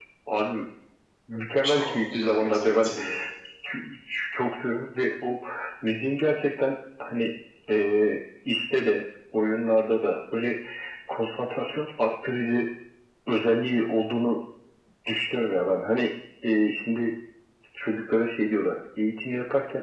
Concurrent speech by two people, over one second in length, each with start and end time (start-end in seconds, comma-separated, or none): 1.6-2.9